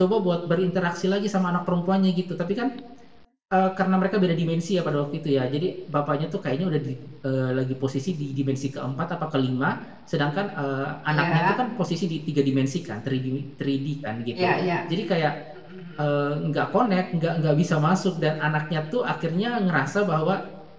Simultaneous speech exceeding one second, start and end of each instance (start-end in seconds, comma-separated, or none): none